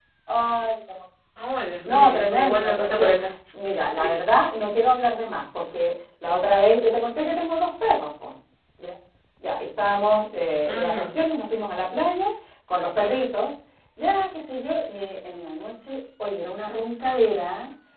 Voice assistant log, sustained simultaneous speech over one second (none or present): present